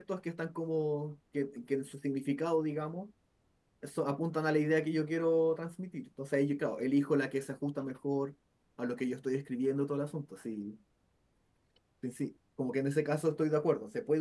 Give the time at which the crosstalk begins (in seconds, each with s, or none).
none